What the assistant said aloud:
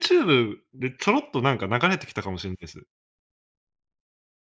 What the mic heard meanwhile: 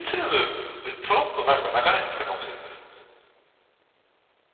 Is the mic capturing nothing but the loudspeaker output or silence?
Yes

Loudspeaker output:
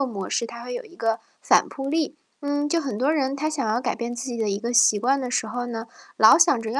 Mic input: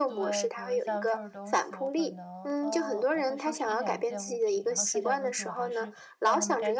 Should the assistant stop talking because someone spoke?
Yes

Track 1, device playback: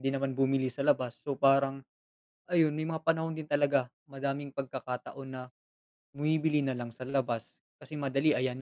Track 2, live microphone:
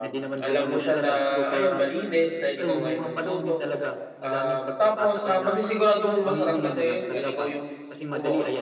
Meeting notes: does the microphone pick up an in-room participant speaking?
Yes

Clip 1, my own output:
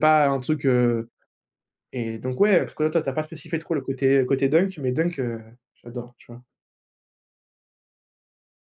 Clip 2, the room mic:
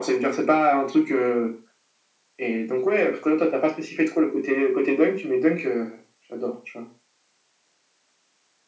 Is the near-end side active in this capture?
No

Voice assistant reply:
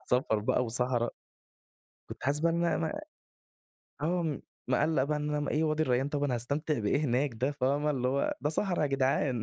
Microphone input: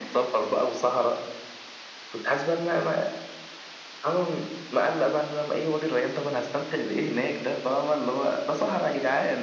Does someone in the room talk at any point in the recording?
No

